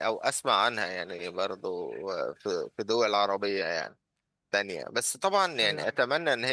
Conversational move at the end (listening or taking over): listening